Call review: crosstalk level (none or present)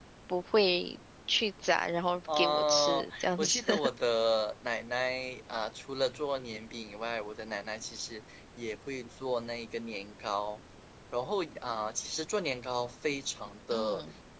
present